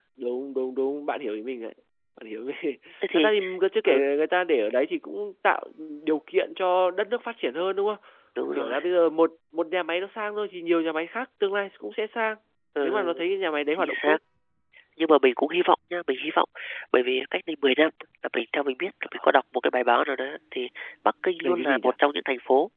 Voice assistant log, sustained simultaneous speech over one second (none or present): none